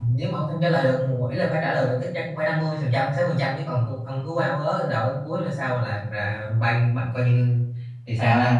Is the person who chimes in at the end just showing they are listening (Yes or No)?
No